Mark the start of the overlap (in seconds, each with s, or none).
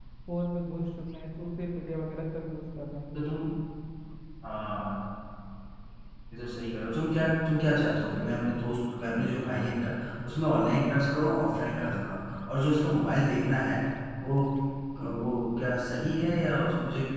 none